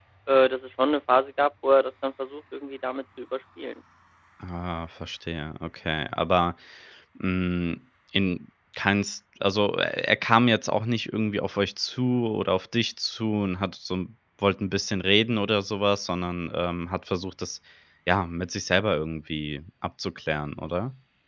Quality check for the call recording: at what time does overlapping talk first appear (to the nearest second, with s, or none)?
none